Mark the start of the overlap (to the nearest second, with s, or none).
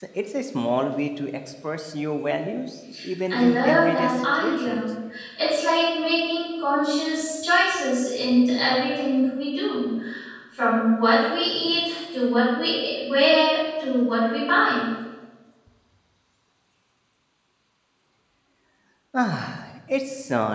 3 s